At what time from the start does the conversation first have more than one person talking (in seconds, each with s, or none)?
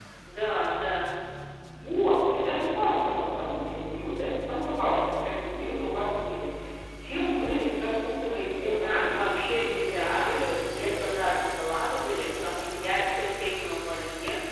8.6 s